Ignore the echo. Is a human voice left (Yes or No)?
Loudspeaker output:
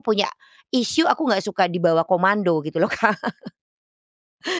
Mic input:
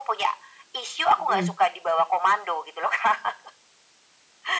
Yes